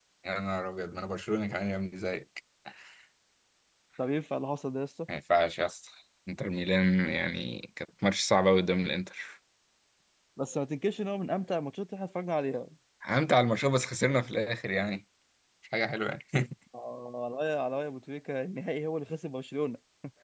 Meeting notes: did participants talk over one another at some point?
No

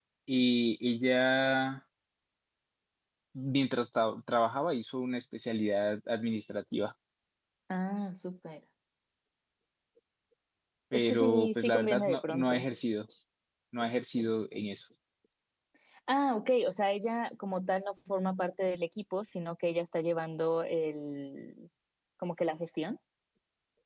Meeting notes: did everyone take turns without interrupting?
No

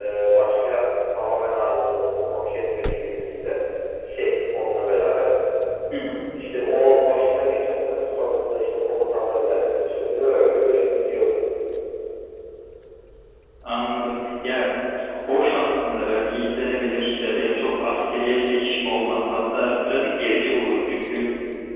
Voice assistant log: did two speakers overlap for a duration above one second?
No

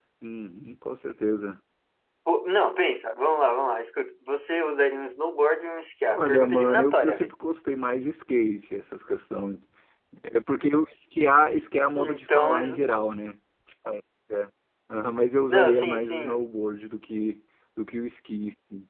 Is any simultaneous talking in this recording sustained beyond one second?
Yes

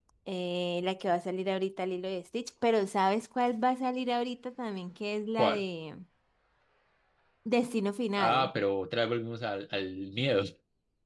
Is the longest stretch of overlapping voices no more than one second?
Yes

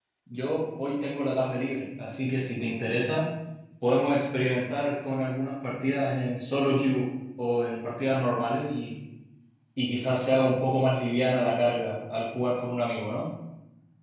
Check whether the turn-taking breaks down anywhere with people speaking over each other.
No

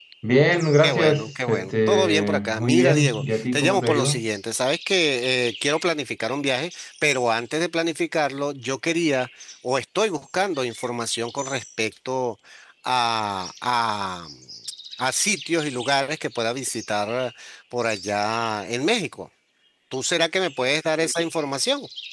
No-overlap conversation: No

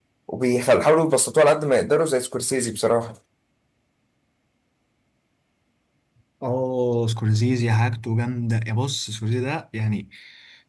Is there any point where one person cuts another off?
No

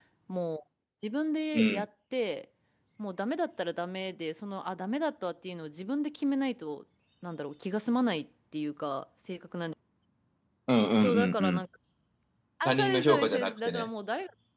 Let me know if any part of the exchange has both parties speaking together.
Yes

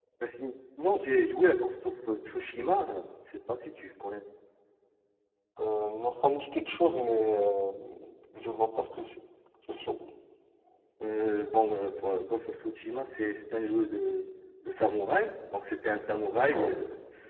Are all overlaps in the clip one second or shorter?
Yes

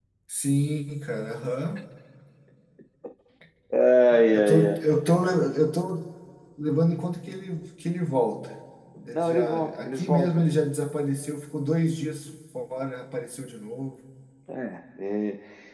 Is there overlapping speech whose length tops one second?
Yes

